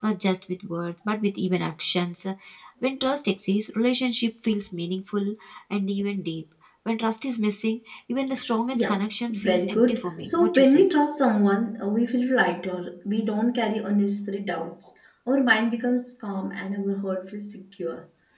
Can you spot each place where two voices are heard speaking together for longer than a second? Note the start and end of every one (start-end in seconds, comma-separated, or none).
8.7-10.8